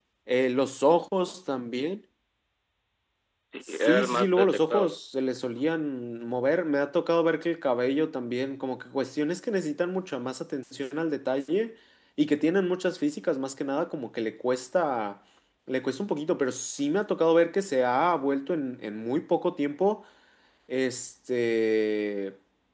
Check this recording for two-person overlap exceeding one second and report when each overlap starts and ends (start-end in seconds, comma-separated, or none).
3.7-5.0